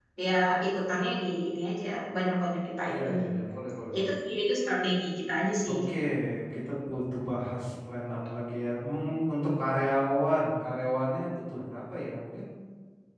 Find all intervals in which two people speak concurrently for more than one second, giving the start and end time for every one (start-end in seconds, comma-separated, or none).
none